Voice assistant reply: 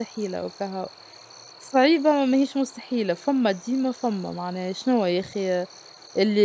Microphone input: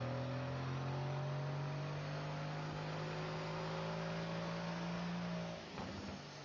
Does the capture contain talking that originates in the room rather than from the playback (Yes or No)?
No